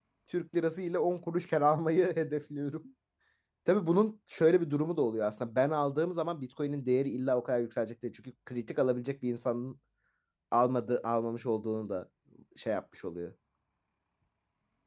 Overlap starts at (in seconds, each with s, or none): none